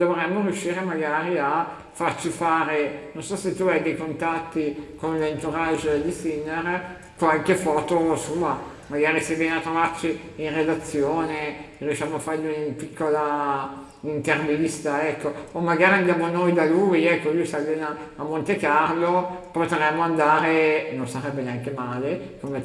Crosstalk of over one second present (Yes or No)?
No